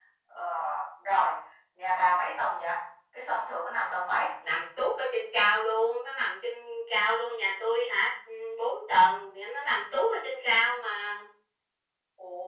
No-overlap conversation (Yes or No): Yes